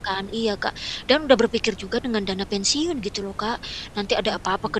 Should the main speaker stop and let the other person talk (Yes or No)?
No